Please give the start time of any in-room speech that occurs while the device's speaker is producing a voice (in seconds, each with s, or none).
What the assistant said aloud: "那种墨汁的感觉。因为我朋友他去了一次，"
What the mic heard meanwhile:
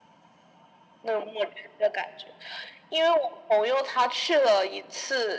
none